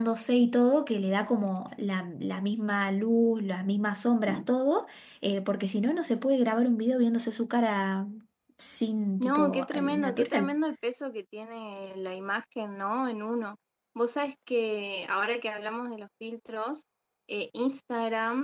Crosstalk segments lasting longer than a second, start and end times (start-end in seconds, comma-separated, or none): 9.2-10.5